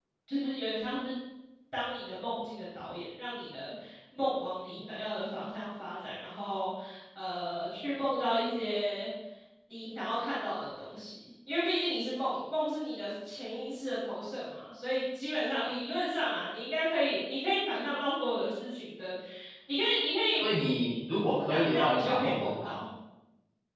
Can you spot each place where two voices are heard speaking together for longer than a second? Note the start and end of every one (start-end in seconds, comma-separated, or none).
21.5-22.7